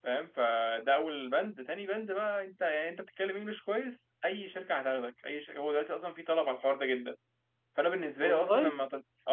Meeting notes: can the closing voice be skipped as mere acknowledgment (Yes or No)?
Yes